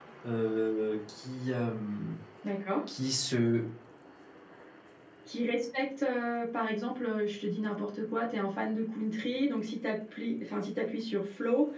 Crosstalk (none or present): none